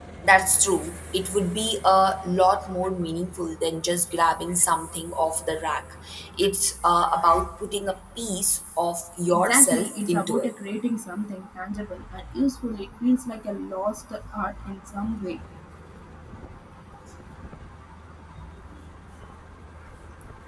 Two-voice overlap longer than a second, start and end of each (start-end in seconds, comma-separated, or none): 9.3-10.5